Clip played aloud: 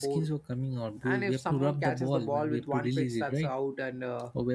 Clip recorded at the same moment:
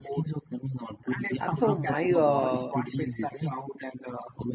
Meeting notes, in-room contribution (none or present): present